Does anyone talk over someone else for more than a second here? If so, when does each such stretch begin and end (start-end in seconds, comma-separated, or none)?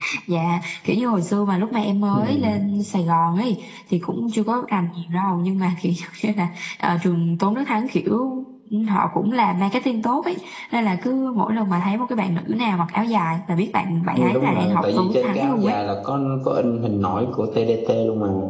14.2-15.8